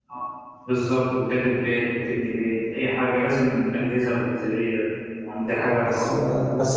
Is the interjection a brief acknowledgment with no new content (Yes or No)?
No